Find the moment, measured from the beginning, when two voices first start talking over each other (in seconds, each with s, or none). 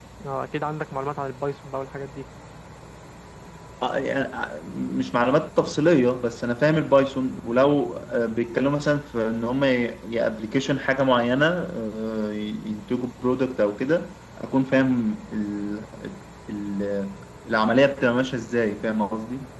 none